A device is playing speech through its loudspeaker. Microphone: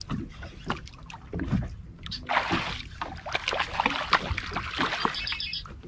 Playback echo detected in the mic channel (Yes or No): No